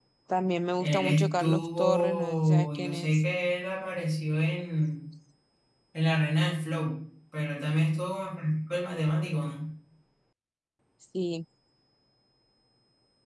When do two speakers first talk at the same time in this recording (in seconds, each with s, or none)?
0.8 s